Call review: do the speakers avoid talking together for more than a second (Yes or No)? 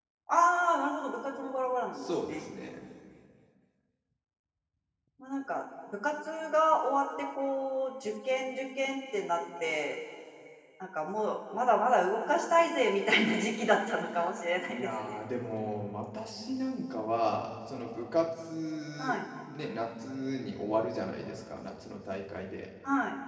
Yes